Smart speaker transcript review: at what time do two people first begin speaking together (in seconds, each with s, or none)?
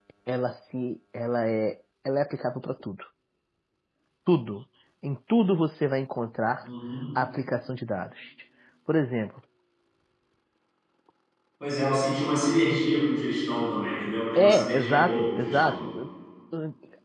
14.4 s